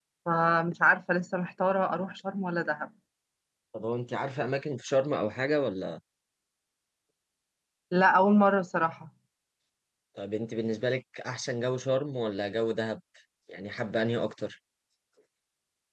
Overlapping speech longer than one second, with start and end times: none

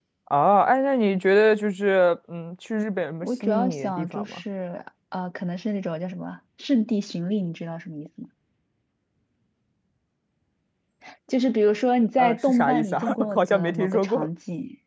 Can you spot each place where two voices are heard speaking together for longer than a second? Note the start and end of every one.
3.2-4.4, 12.2-14.3

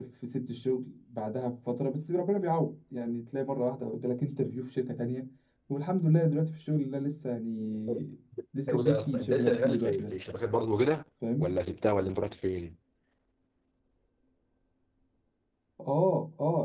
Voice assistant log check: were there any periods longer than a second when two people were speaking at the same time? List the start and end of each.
8.7-10.1

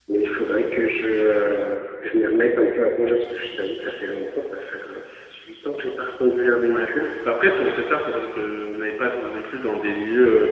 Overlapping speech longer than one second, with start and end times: none

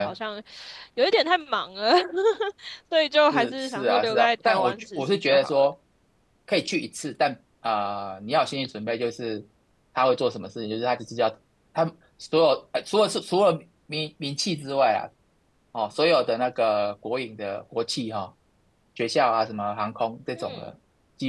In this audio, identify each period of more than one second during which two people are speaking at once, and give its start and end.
3.3-5.7

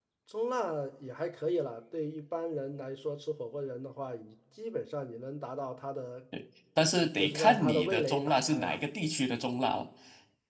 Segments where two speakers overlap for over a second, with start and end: 7.2-8.8

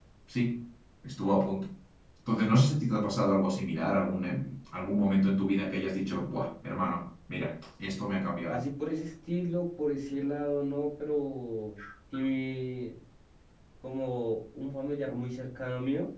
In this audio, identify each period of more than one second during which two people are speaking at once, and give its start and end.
none

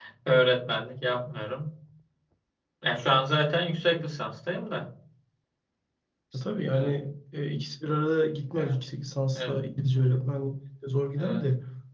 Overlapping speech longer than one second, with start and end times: none

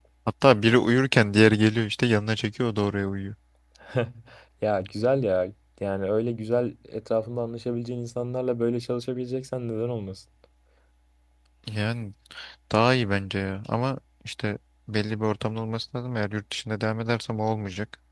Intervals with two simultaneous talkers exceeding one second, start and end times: none

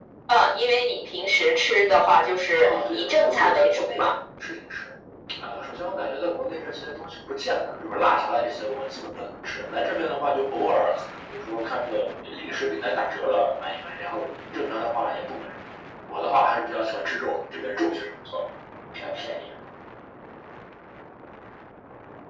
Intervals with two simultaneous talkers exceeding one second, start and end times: 2.6-4.1

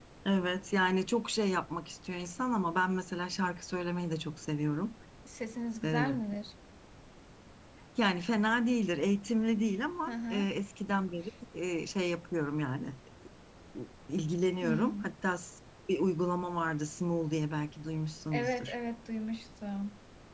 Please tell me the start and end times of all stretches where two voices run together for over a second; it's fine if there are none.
none

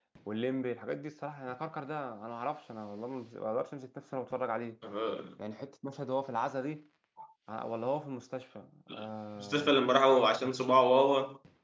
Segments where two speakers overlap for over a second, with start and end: none

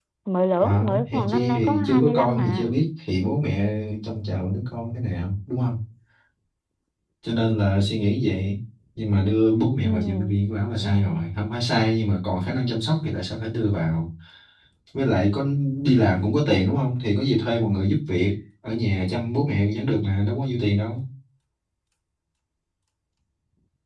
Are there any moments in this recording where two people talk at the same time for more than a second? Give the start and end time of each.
0.6-2.7

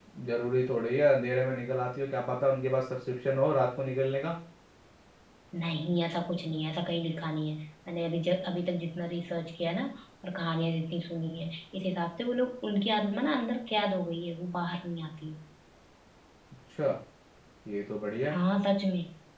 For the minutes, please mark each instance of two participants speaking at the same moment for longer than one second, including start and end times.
none

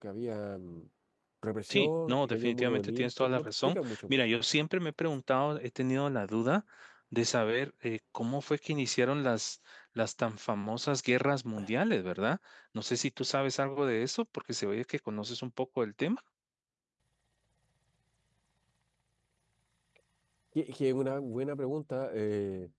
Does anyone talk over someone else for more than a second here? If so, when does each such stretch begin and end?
1.7-4.2

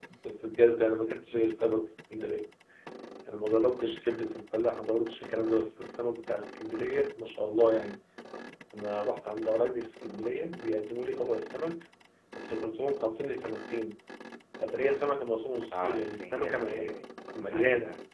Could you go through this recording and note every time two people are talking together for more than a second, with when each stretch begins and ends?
15.7-17.0

